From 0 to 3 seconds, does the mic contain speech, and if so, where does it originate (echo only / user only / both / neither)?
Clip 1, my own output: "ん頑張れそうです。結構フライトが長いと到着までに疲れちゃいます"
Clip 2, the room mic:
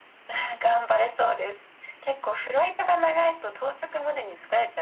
echo only